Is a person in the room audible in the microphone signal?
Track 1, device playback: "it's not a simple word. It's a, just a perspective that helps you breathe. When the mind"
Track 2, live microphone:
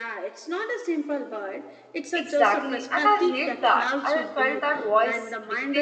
Yes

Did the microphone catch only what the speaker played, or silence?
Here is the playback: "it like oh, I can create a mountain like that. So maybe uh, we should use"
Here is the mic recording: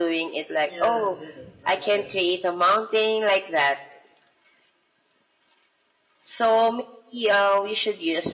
No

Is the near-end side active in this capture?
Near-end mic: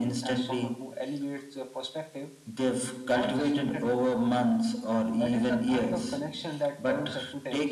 No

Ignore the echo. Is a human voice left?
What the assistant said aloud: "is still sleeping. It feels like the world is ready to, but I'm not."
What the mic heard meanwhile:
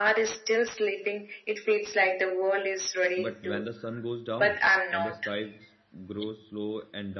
Yes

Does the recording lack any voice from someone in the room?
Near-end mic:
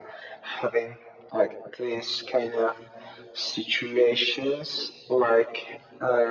Yes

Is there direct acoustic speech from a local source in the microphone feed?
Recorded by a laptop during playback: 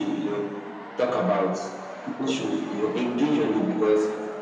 No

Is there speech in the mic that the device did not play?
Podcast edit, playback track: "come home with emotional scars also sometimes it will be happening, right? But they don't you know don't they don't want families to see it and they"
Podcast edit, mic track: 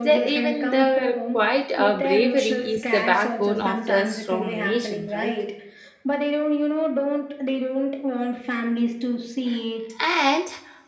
Yes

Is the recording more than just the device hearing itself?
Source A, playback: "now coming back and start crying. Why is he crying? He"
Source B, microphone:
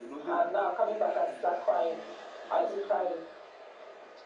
Yes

